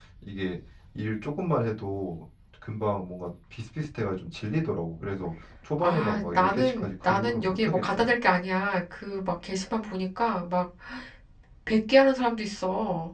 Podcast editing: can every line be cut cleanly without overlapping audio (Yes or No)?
No